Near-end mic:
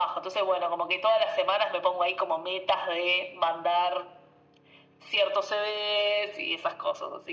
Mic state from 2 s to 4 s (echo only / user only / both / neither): echo only